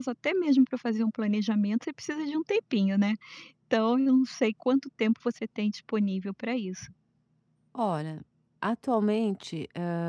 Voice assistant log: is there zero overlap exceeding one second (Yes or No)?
Yes